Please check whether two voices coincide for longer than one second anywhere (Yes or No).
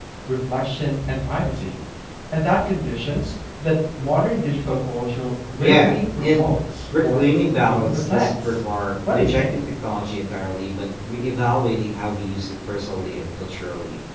Yes